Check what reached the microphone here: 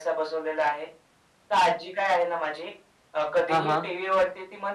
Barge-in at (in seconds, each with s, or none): 3.5 s